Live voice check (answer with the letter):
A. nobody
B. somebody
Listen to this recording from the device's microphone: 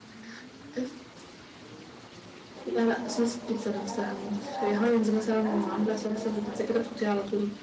B